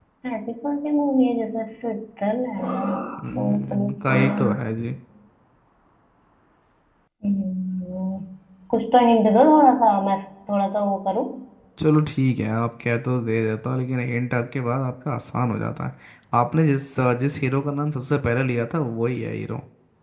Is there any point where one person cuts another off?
Yes, from 3.2 s

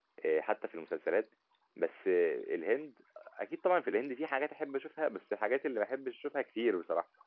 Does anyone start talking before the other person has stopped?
No

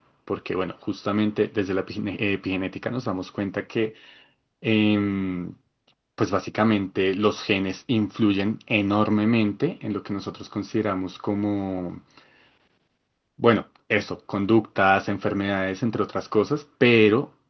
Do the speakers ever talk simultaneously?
No

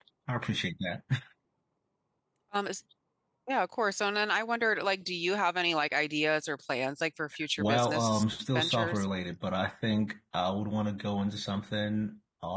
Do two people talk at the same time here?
Yes, from 7.6 s

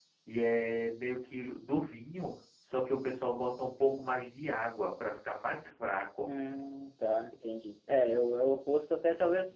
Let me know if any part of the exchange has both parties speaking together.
No

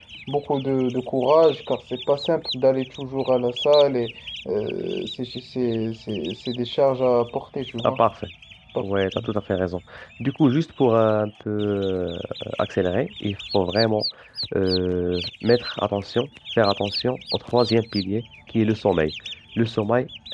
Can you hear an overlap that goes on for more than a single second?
No

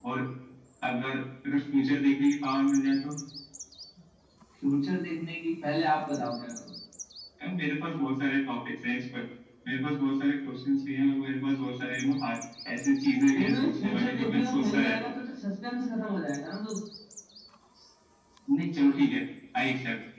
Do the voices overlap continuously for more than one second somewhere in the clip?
Yes, from 13.3 s

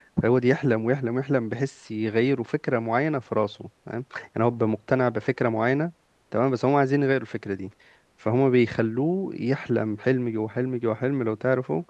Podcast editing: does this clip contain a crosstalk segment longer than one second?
No

